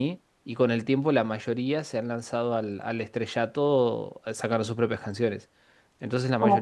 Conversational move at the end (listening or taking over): listening